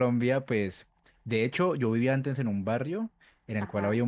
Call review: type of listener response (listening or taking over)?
listening